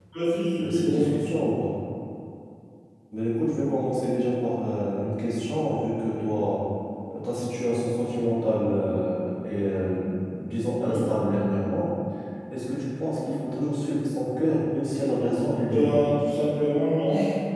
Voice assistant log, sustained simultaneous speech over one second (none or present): none